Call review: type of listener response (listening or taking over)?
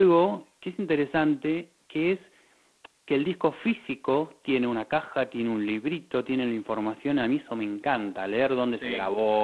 listening